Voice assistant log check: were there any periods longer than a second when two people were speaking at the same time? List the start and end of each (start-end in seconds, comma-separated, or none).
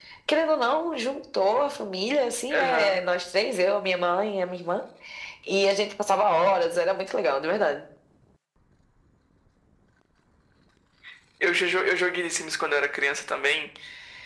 none